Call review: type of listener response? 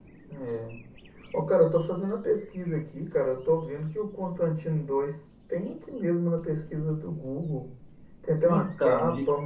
listening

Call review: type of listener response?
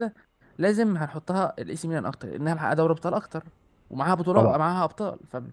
listening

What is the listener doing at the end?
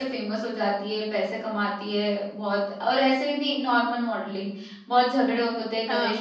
listening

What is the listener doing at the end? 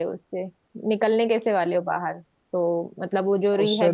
listening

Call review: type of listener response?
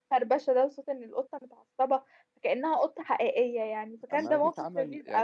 taking over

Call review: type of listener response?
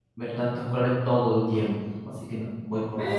taking over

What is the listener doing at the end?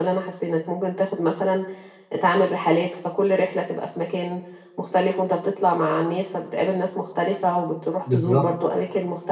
listening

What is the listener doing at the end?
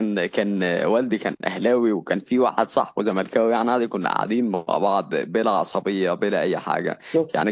listening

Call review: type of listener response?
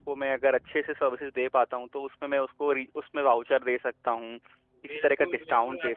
taking over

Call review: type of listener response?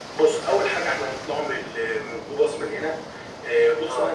listening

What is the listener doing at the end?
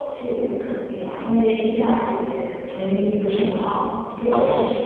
listening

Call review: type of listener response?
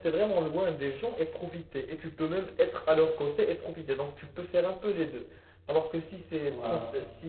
listening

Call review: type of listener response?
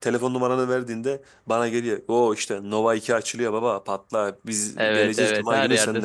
taking over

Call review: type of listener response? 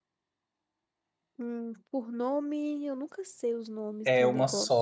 taking over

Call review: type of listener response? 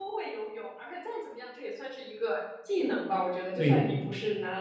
listening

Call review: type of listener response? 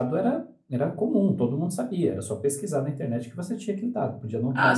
taking over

